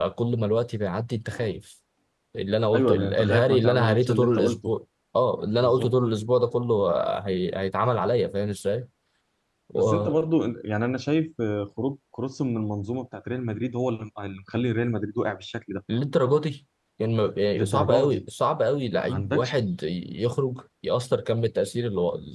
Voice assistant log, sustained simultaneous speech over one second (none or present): present